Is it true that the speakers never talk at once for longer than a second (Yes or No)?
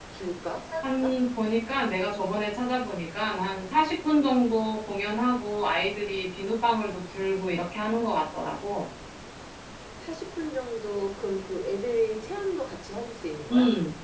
Yes